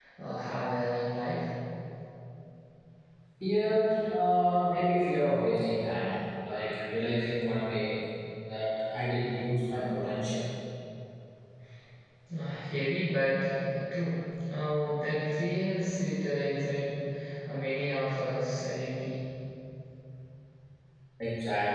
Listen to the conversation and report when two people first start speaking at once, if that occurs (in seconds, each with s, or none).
none